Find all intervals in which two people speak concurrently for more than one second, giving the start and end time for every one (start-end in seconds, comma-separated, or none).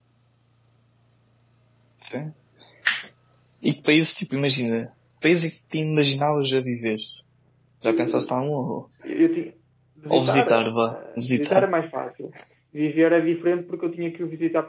10.1-11.7